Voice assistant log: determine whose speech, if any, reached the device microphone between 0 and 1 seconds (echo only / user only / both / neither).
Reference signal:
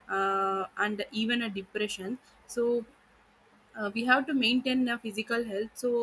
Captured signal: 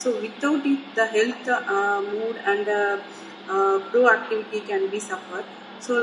user only